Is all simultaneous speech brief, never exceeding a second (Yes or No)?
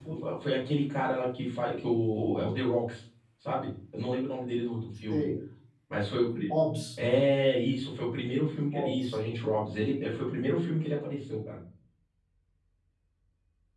Yes